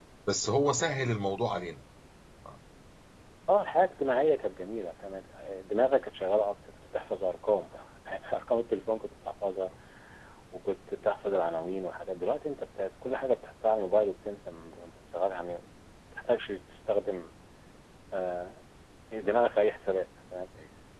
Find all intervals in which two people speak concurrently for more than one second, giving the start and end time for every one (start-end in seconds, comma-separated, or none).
none